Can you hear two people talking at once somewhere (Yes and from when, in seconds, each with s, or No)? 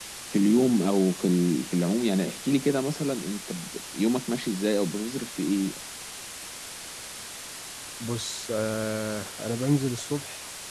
No